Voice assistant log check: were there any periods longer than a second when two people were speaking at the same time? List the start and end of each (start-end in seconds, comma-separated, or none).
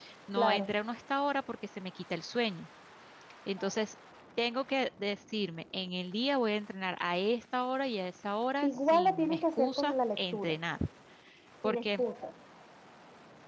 8.6-10.6